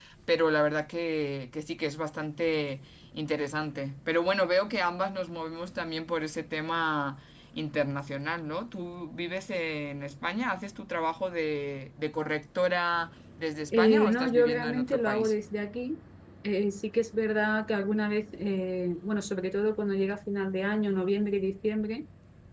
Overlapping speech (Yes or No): Yes